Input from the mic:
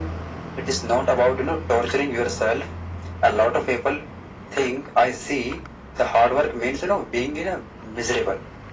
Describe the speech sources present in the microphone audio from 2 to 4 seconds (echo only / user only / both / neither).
echo only